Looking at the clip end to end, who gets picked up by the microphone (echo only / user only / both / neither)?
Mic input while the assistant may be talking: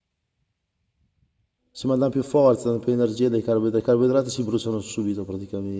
user only